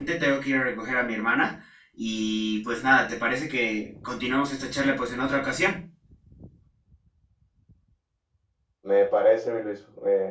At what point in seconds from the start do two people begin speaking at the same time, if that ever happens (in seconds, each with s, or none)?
none